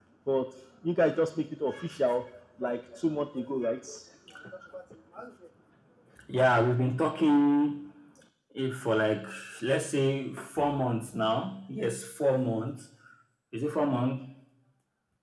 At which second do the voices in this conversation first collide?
none

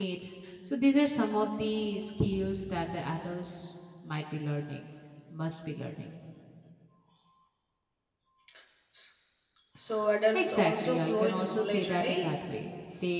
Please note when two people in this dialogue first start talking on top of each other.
10.3 s

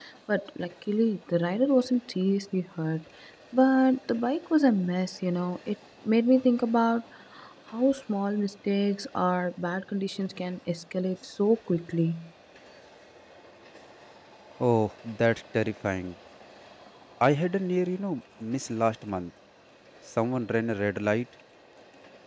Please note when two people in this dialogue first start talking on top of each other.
none

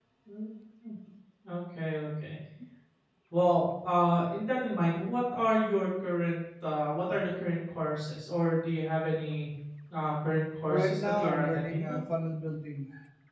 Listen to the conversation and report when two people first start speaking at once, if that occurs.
10.7 s

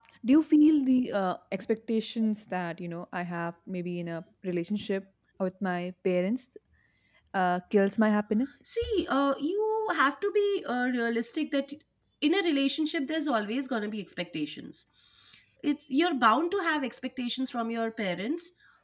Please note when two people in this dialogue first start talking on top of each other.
none

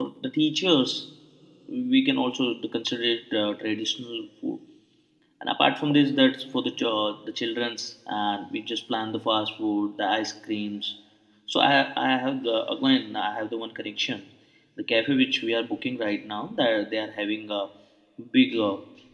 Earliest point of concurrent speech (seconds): none

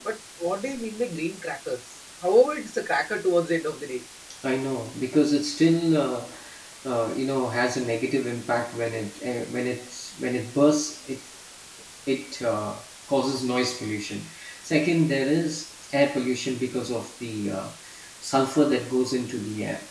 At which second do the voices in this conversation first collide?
none

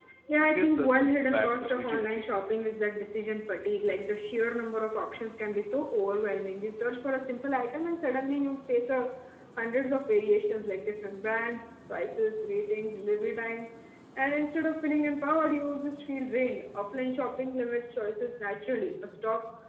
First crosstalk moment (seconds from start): 0.6 s

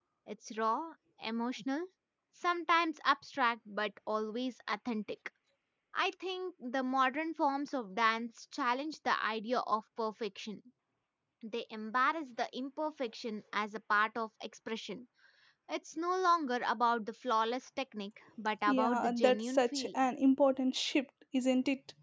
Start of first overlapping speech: 18.7 s

